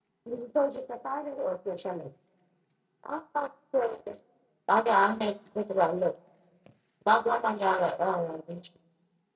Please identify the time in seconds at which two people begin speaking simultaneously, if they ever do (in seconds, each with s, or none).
none